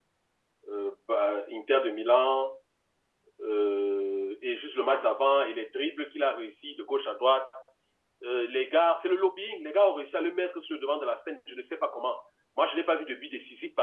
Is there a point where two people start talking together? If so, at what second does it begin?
none

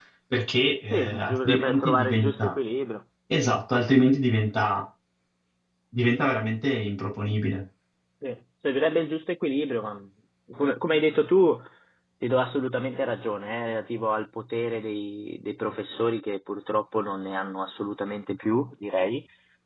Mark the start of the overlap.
0.9 s

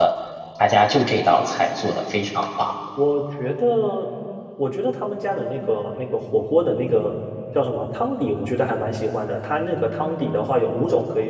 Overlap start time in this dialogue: none

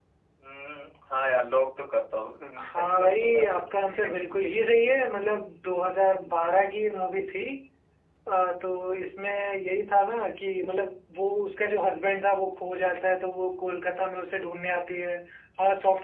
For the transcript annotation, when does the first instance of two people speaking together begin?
2.6 s

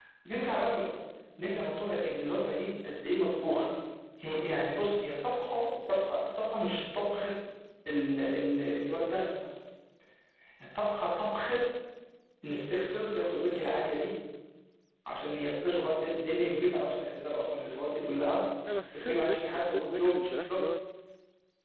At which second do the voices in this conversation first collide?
18.9 s

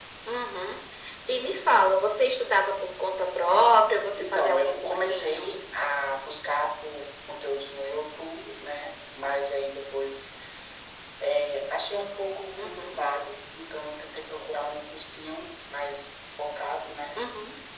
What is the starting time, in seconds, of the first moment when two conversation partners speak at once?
4.2 s

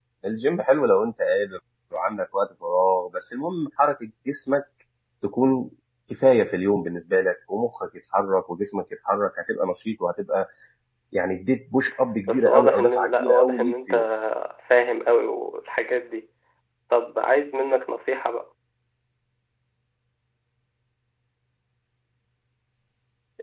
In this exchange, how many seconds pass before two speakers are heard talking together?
12.3 s

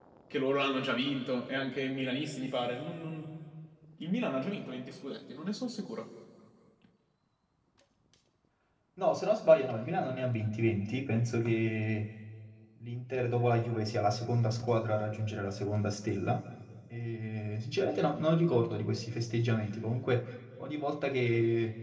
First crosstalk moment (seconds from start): none

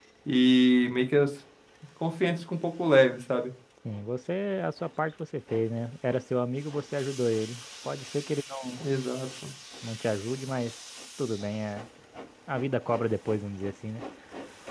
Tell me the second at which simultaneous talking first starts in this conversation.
none

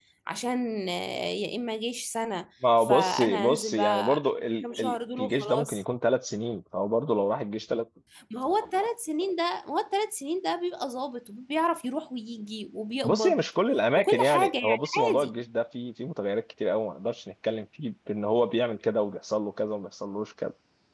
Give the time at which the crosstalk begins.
2.8 s

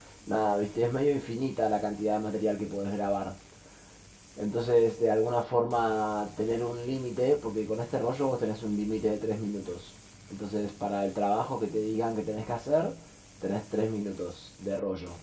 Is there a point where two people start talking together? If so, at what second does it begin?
none

